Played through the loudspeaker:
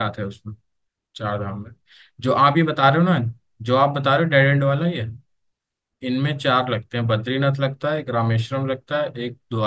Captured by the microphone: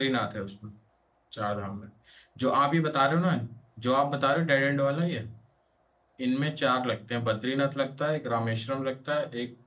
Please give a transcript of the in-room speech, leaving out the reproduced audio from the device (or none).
none